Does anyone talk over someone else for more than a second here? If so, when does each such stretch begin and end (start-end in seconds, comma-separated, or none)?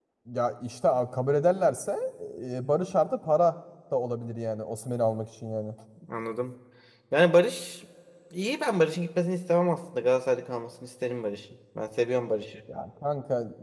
none